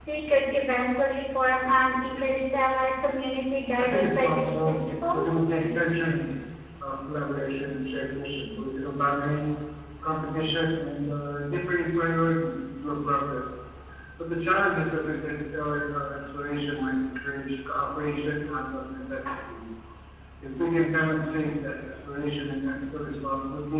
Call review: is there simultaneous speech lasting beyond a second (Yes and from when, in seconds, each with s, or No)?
Yes, from 3.8 s